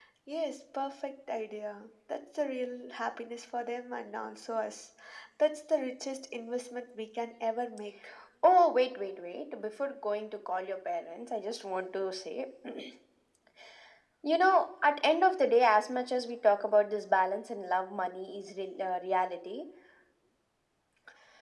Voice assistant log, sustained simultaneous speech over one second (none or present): none